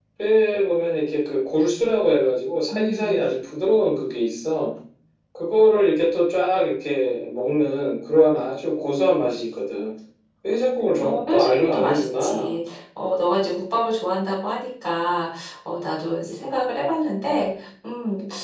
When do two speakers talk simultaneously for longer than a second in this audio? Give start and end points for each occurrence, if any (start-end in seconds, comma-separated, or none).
11.0-12.6